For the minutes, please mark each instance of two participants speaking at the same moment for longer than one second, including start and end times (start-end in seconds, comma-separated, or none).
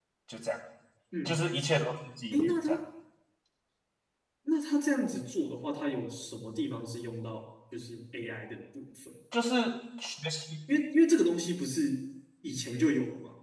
none